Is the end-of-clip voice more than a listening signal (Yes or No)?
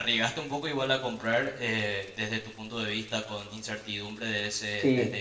Yes